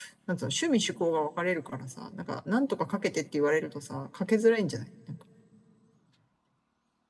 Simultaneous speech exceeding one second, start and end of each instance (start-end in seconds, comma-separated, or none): none